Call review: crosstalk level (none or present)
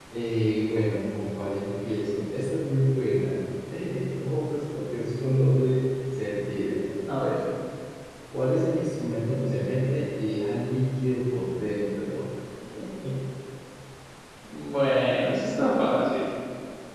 none